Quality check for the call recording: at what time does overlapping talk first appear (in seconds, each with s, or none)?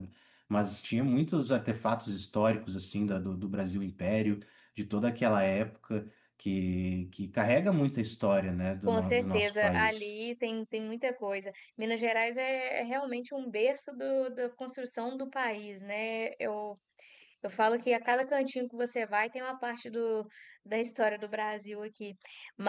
8.9 s